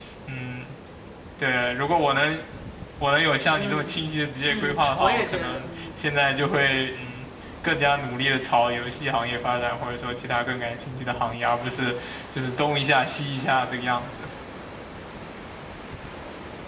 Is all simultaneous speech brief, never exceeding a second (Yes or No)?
No